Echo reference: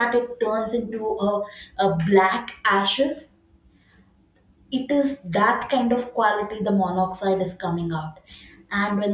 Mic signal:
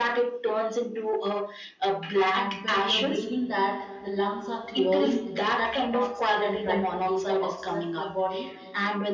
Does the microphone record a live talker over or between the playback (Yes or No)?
Yes